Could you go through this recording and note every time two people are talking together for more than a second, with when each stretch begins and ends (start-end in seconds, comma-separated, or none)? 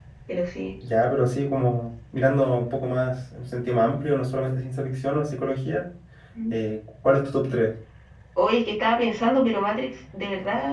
none